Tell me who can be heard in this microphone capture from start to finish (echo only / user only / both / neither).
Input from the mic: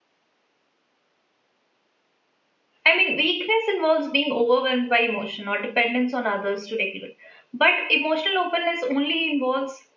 user only